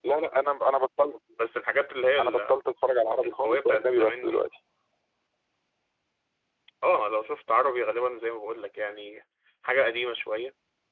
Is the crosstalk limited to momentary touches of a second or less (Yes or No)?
No